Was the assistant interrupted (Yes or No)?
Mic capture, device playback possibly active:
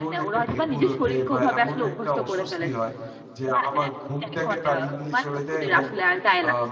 Yes